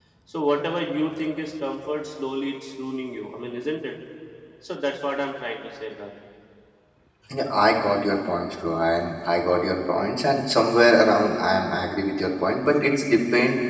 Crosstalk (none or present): none